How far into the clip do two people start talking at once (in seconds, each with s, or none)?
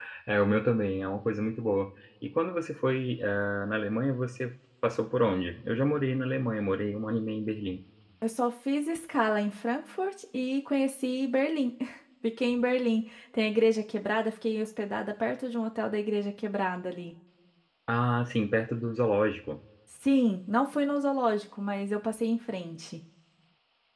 none